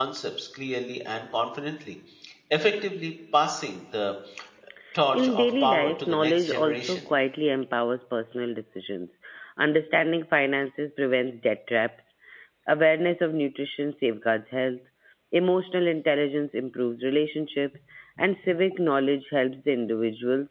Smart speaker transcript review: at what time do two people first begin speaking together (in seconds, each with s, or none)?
5.1 s